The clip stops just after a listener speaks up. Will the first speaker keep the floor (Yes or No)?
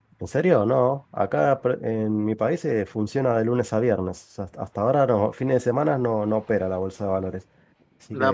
No